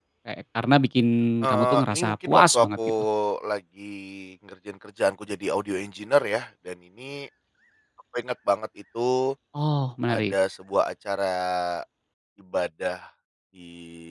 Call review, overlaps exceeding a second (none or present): present